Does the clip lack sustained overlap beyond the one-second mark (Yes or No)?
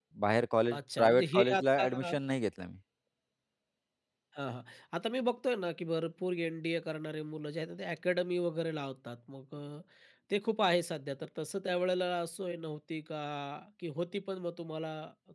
No